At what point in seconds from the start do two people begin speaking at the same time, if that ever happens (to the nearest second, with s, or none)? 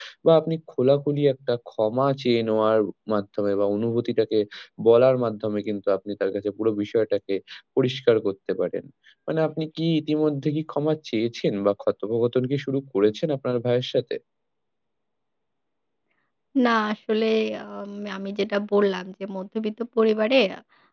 none